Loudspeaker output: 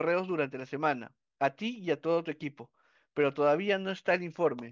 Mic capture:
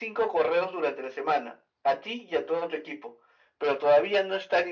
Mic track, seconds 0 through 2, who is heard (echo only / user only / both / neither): echo only